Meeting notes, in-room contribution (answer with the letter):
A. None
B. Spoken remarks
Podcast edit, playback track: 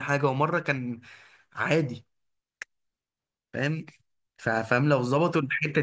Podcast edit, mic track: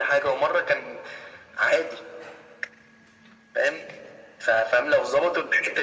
A